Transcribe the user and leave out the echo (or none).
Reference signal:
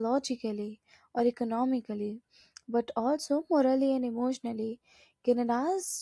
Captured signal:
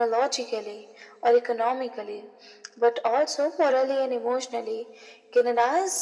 none